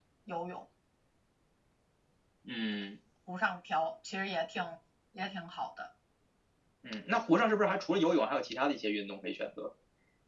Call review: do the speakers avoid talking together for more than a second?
Yes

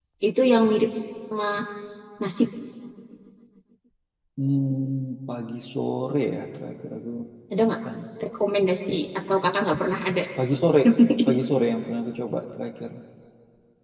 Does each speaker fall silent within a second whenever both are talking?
Yes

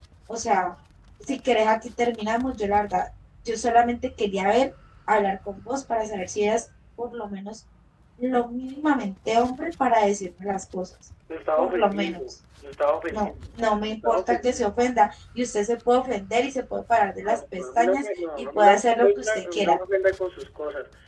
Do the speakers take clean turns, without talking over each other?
No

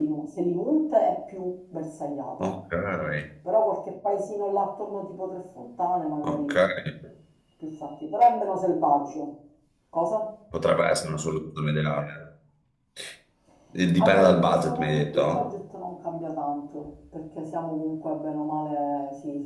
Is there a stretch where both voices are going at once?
Yes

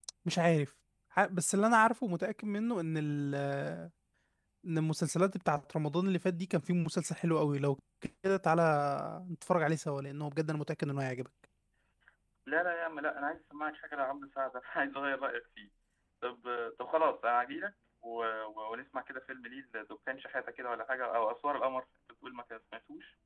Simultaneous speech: No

